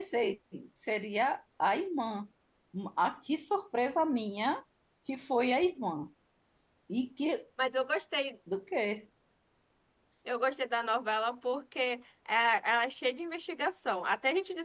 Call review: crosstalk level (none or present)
none